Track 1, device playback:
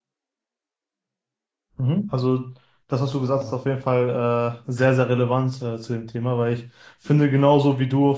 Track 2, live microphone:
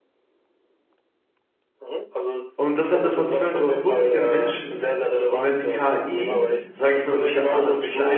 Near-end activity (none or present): present